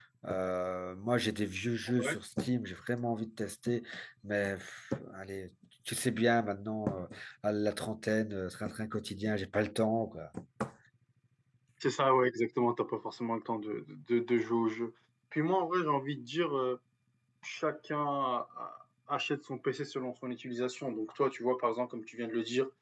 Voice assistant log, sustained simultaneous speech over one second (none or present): none